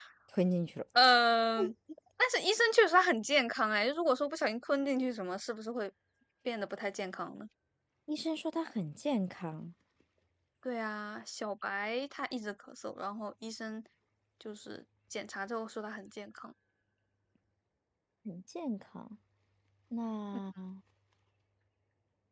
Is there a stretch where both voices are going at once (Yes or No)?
No